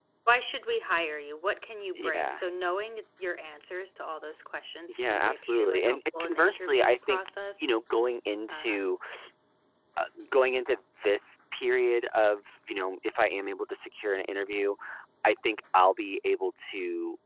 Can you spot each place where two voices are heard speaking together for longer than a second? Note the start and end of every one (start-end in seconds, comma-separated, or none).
5.0-7.2